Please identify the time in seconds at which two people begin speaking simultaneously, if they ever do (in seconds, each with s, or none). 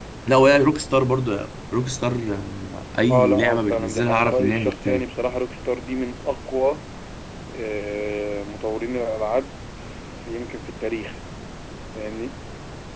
3.1 s